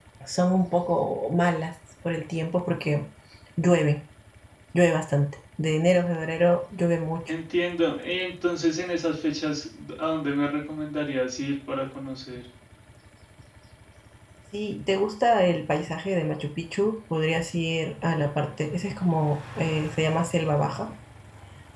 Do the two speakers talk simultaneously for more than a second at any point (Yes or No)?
No